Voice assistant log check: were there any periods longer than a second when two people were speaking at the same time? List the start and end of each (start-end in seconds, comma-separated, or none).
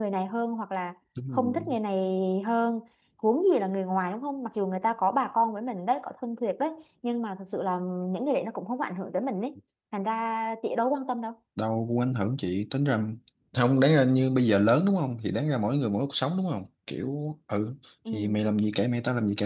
none